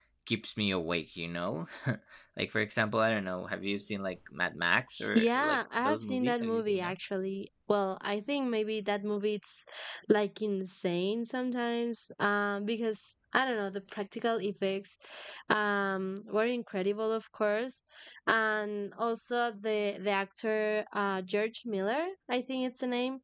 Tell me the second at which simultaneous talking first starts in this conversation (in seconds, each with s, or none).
5.1 s